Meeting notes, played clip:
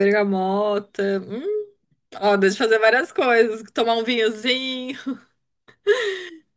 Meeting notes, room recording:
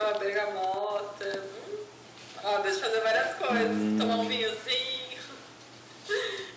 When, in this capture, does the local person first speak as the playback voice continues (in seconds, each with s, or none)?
3.5 s